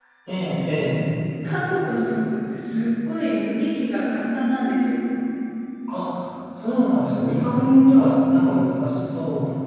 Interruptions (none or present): none